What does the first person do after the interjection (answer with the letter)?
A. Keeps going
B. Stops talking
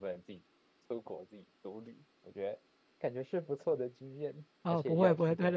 B